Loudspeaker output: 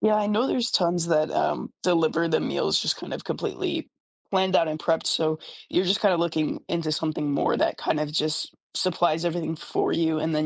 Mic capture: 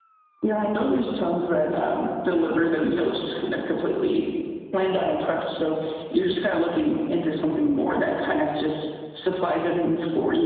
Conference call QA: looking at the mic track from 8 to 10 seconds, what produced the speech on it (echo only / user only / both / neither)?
echo only